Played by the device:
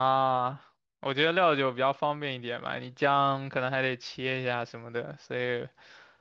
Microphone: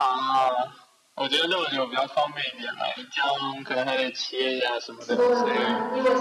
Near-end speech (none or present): present